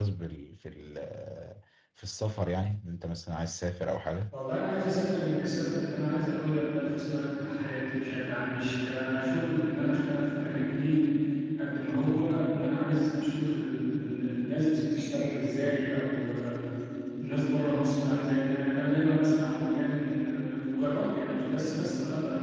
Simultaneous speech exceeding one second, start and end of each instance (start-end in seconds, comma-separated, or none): none